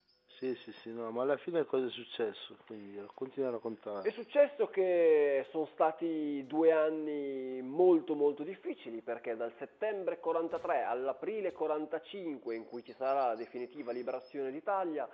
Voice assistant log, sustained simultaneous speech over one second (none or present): none